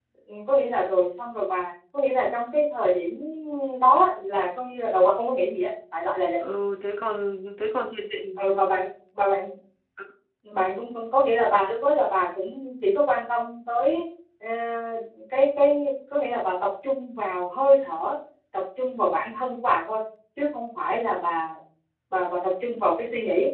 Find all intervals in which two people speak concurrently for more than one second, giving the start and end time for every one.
none

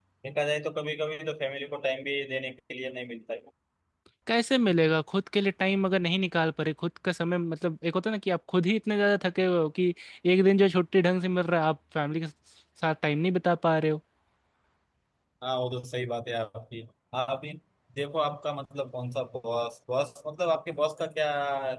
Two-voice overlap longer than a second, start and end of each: none

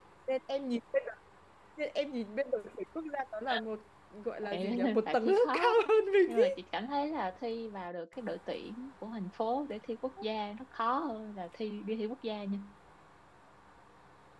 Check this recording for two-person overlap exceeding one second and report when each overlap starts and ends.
4.4-5.8

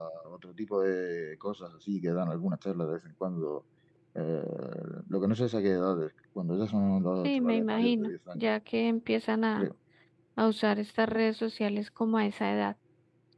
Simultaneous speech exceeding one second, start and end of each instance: 7.2-8.5

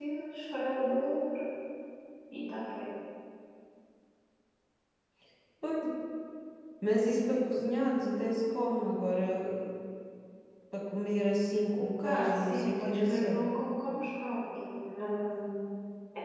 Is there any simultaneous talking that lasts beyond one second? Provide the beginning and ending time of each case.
12.0-13.4

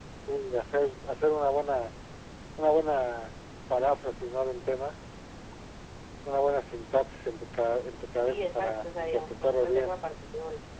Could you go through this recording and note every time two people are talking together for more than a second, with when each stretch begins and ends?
8.2-9.9

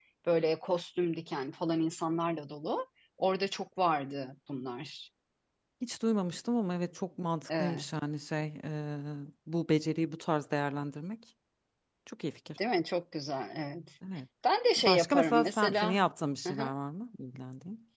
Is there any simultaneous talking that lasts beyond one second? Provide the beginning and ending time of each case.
14.8-16.0

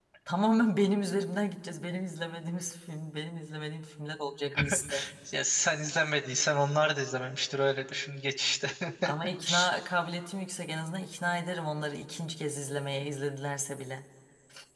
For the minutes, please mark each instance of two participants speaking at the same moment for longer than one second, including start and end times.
none

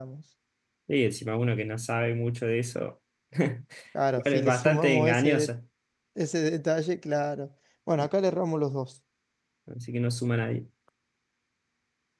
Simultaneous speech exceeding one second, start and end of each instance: 4.2-5.5

